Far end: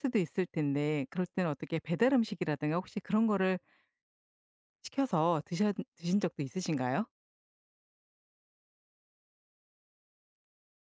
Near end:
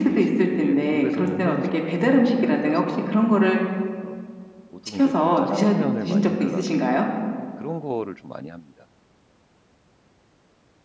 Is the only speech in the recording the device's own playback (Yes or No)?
No